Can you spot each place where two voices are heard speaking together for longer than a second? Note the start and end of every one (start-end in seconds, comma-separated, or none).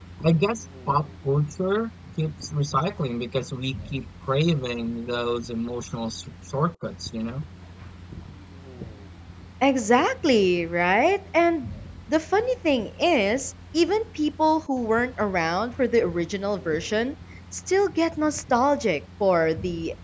none